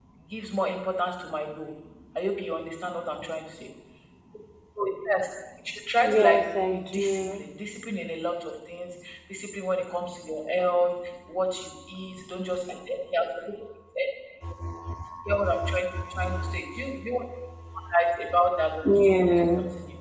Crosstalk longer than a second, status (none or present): present